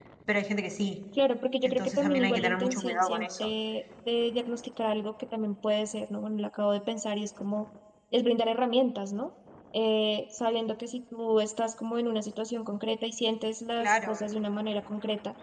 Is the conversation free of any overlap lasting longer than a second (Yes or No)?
No